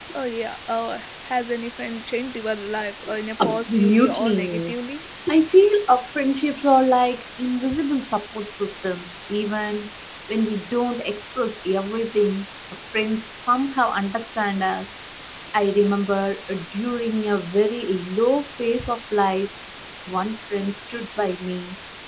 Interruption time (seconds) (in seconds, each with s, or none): 3.4 s